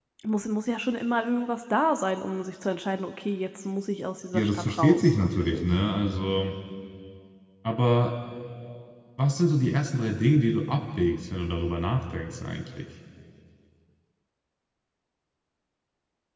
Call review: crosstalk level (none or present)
present